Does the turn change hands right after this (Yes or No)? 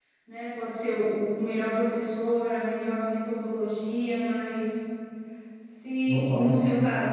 No